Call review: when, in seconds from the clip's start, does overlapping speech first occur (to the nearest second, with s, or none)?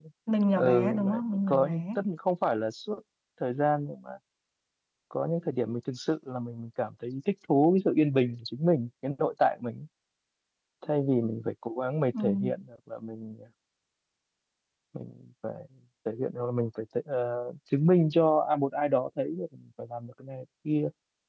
1 s